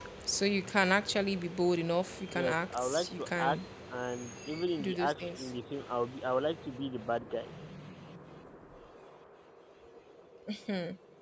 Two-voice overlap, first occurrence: 2.3 s

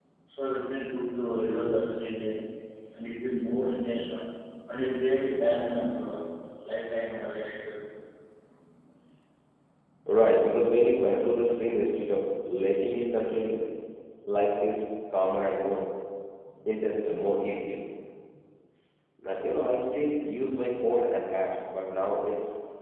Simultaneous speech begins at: none

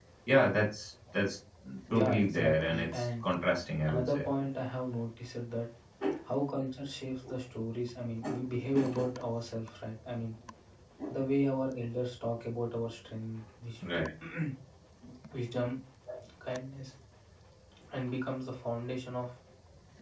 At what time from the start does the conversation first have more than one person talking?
2.0 s

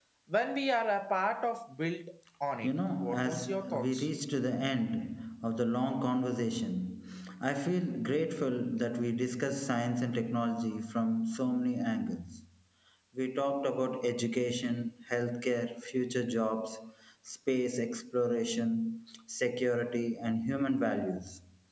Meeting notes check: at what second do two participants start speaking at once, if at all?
2.6 s

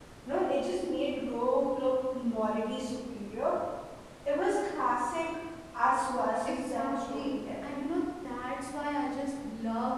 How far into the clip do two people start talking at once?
6.4 s

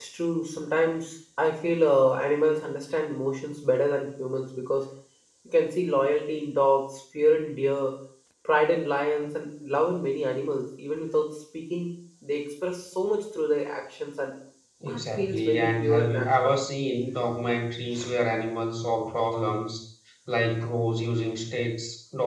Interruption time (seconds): 14.9 s

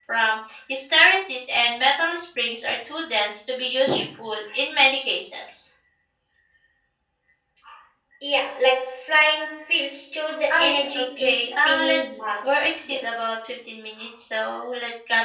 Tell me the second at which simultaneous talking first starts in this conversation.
10.5 s

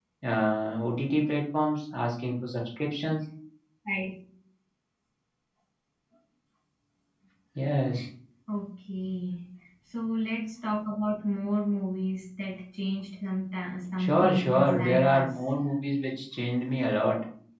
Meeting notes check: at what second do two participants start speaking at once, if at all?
14.0 s

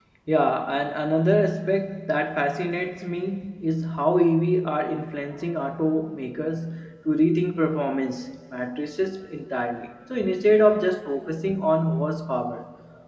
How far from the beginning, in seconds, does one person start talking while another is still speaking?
none

